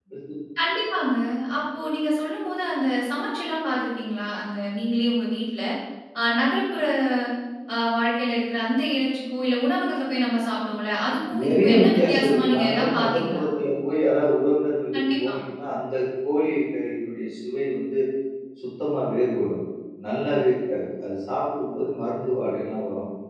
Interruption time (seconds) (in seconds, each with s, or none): 11.4 s